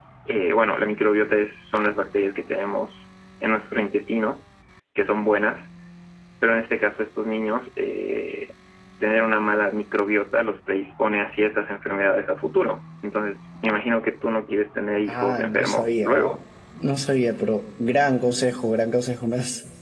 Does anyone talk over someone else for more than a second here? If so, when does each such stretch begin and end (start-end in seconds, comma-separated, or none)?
15.1-16.4